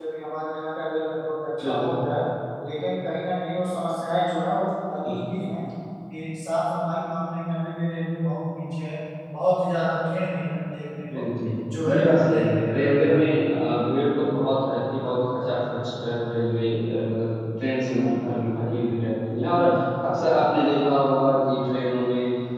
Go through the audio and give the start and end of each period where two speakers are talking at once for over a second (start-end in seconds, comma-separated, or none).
11.9-13.5